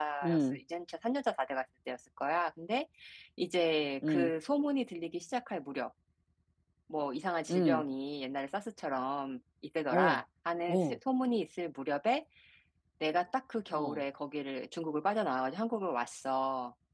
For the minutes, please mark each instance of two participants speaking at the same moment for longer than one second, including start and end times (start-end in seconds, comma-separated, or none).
none